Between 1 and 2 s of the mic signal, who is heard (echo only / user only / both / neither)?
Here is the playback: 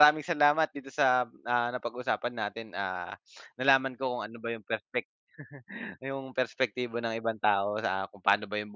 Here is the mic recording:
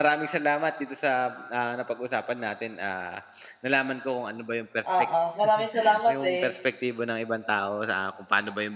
echo only